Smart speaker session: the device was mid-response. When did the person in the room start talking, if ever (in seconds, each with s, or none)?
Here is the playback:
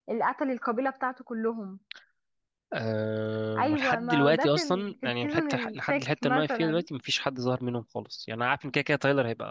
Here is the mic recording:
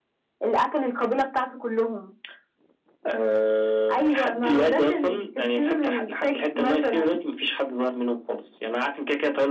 none